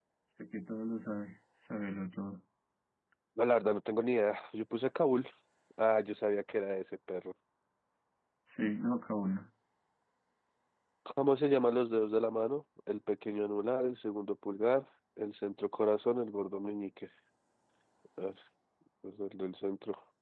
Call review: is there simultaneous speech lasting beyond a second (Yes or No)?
No